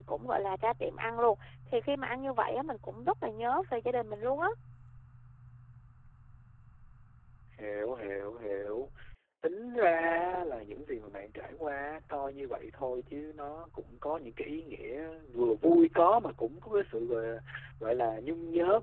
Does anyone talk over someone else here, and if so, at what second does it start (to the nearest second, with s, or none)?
none